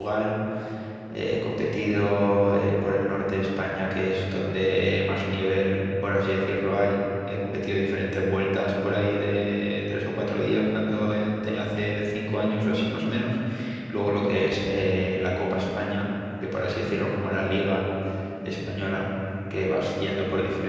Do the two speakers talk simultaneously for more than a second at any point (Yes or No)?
No